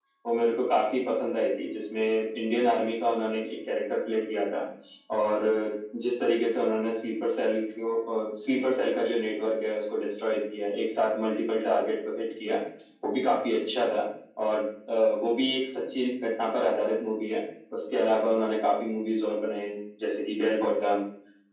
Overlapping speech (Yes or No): No